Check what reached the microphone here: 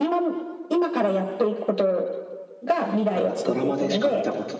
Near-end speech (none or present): present